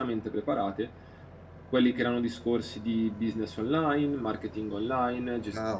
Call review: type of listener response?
taking over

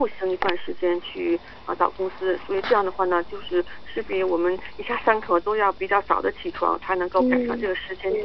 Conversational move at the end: taking over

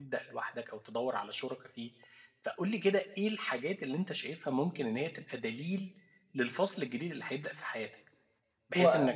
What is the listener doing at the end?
listening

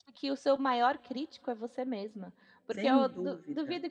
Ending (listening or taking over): listening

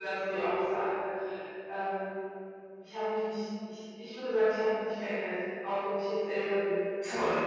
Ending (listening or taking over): listening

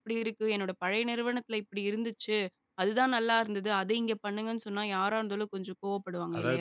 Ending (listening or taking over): taking over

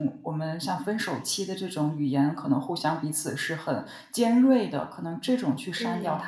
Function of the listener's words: listening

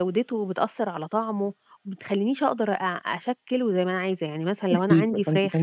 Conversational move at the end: taking over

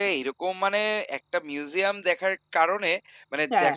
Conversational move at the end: listening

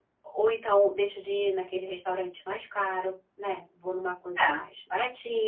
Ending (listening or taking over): listening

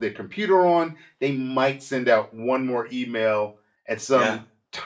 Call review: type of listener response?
listening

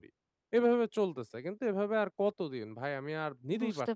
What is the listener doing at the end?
taking over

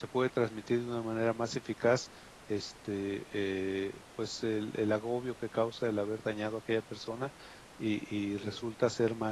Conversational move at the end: listening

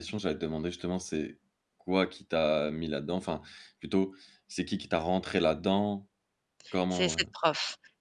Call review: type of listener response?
taking over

